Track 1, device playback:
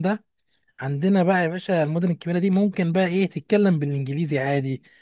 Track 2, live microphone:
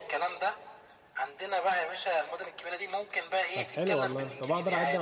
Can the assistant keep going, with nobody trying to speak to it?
No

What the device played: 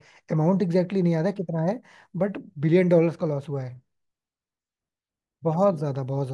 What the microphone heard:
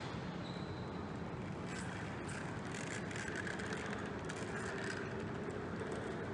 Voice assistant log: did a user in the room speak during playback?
No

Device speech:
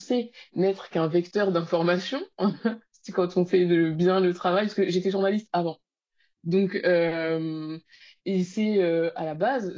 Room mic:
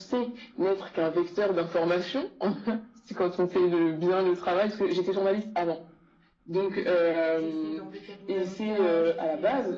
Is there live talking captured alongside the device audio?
Yes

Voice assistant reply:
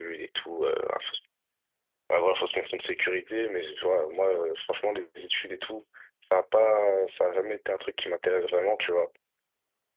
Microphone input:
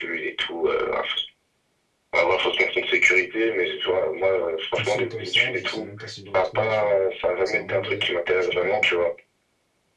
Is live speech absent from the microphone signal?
No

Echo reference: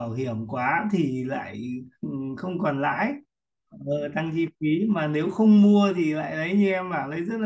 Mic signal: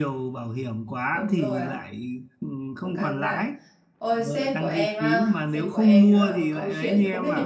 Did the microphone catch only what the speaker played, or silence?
No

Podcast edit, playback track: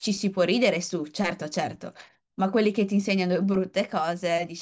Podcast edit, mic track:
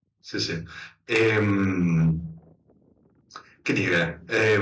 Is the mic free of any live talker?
No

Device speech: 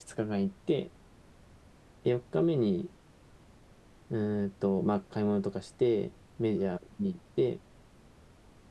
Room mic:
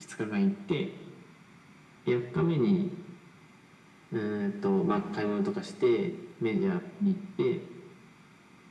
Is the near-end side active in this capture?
No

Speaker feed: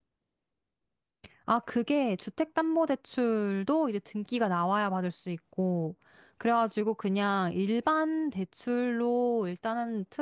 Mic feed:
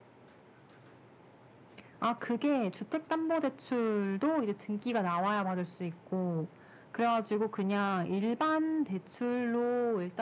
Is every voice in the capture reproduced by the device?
Yes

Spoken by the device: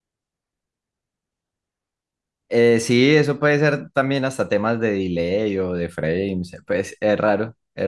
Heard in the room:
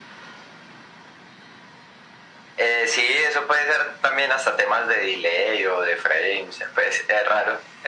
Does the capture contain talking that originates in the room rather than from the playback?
No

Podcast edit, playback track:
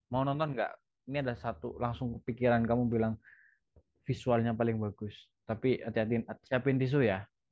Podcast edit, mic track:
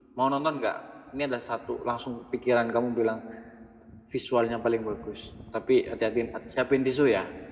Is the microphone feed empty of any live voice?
Yes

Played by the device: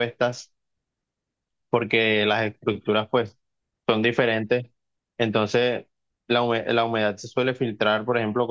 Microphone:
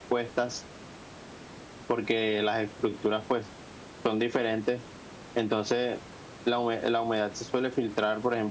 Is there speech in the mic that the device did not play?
No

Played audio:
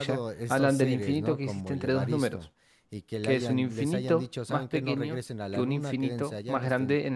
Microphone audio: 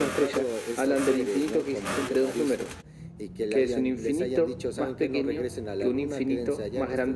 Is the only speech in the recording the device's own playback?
Yes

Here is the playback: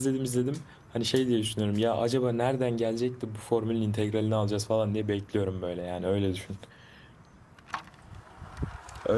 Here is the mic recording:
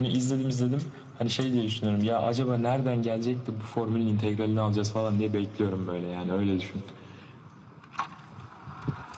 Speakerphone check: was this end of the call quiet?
Yes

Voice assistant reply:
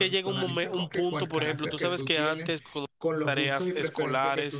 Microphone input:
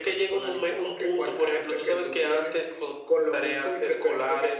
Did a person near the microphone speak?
No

